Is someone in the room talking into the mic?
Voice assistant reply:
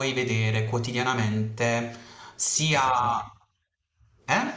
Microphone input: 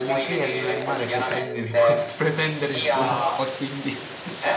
Yes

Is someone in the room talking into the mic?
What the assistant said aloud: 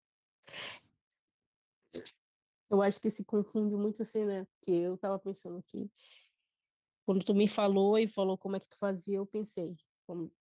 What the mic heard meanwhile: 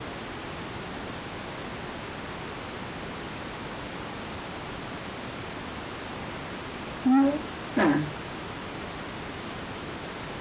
Yes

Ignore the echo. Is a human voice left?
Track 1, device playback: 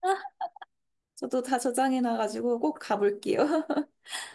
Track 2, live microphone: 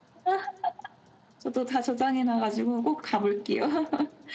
No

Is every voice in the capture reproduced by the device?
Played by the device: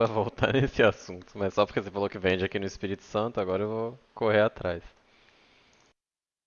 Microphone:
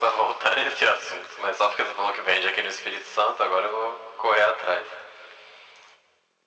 Yes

